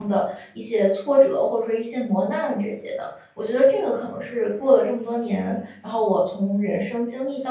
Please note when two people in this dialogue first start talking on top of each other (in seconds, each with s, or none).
none